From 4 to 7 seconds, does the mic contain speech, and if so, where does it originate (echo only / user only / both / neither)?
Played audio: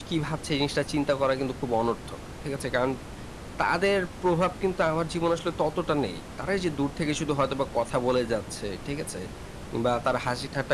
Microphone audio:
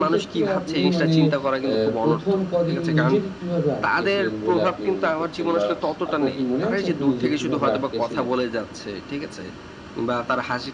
both